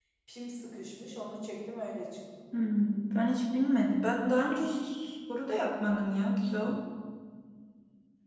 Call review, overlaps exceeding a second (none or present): none